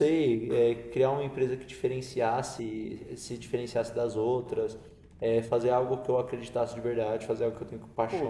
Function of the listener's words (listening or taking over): taking over